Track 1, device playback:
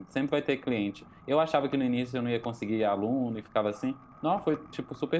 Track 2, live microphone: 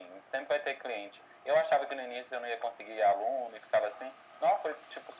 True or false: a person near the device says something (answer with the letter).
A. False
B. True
A